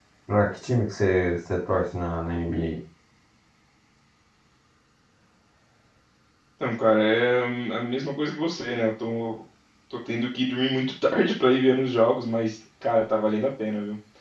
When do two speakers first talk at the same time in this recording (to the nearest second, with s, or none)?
none